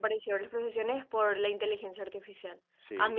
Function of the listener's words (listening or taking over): listening